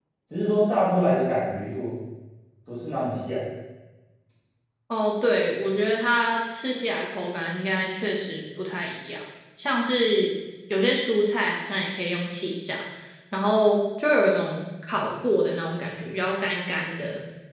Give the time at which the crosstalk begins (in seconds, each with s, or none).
none